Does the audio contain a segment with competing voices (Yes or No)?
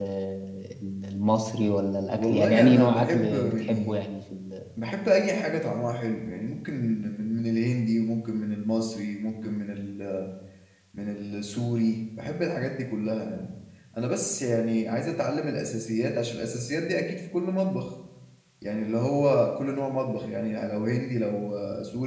Yes